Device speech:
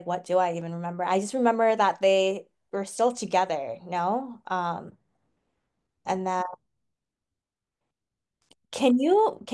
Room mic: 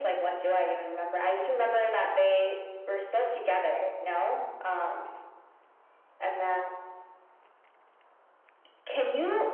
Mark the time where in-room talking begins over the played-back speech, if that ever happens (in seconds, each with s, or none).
none